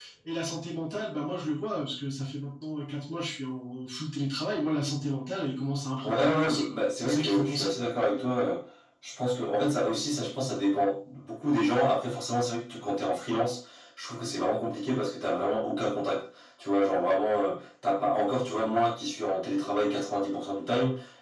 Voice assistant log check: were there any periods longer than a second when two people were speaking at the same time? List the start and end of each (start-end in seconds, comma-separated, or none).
6.0-7.7